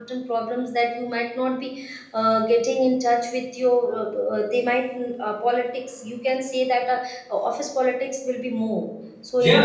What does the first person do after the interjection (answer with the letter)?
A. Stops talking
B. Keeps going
B